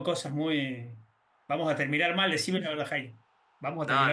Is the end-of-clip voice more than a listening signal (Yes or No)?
Yes